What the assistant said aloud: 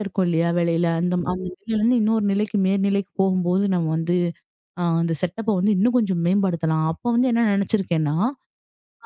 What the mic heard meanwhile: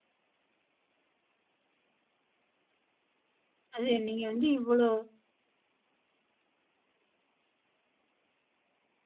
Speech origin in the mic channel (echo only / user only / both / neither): user only